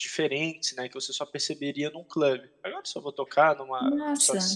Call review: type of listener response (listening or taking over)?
listening